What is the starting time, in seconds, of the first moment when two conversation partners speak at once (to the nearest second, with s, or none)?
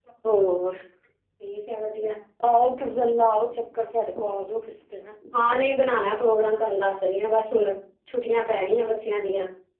none